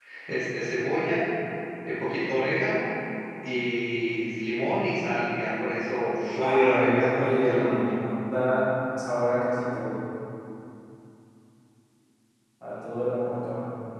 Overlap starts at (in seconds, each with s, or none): 6.4 s